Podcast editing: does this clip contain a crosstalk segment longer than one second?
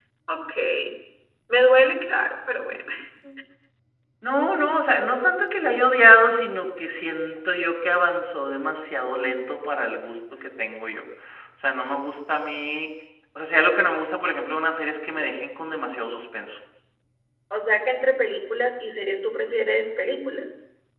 No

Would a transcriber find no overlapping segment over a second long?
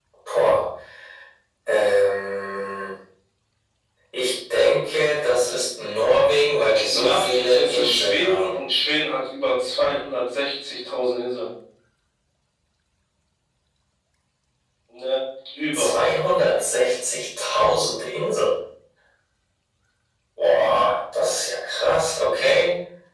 No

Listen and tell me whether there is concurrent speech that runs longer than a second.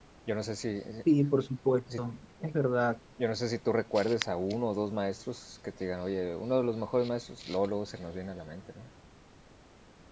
No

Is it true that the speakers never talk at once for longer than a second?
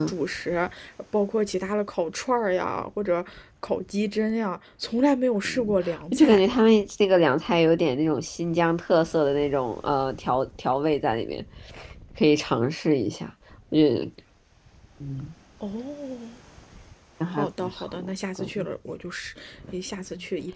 No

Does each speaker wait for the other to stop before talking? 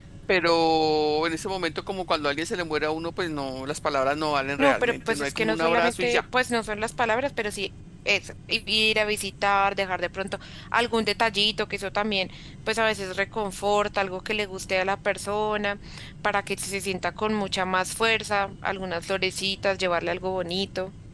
No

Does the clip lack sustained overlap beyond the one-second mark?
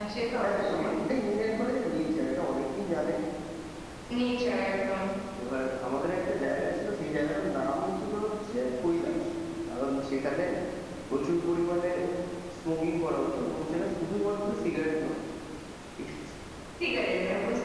Yes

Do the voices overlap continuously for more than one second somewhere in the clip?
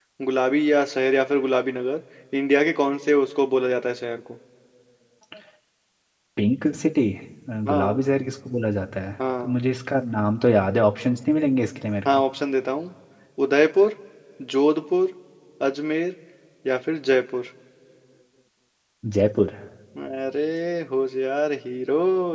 No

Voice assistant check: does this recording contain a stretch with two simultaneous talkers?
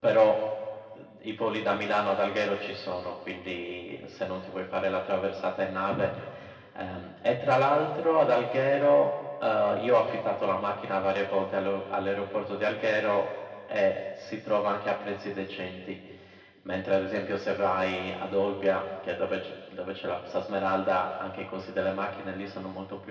No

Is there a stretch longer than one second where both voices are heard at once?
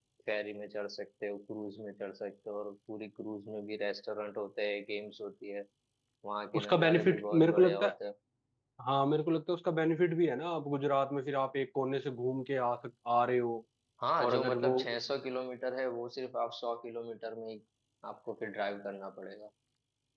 Yes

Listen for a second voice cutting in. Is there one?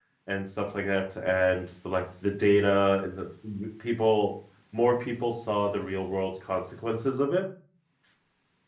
No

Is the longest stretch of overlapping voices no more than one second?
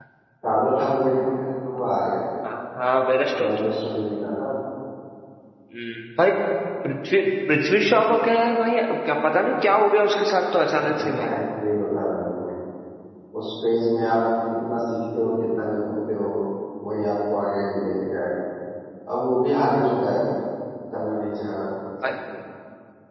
Yes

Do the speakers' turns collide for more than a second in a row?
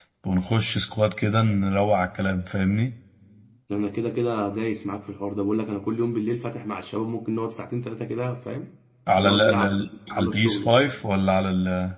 Yes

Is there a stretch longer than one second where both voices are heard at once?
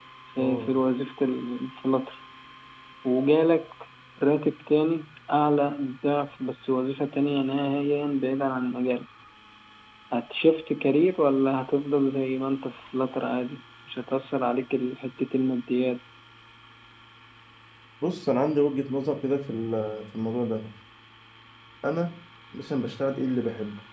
No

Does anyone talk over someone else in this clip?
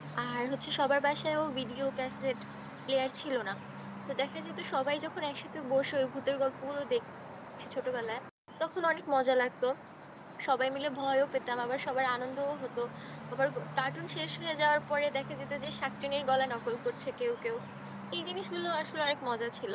No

